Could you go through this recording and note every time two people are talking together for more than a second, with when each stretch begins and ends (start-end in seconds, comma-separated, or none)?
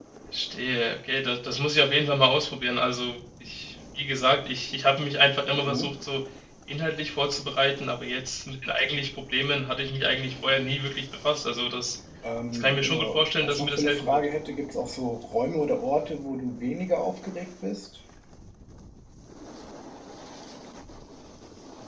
12.5-14.2